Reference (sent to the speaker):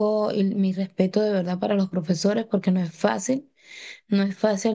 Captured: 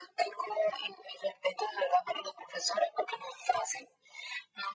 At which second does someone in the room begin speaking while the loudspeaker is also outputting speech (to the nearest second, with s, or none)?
none